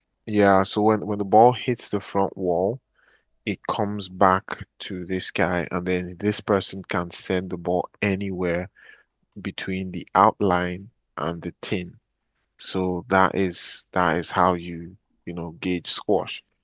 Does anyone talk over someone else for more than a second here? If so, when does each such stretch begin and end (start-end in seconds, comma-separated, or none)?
none